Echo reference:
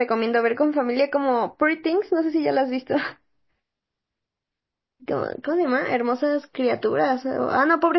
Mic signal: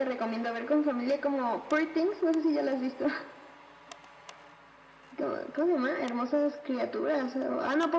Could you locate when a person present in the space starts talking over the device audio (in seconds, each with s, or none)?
none